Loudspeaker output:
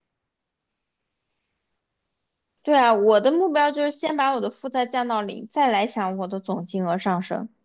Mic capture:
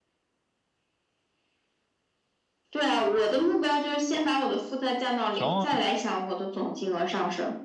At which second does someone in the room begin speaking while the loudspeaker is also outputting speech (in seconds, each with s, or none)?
5.3 s